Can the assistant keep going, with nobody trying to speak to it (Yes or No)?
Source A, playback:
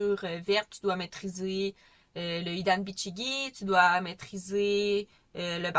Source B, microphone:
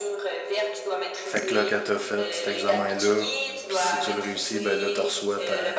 No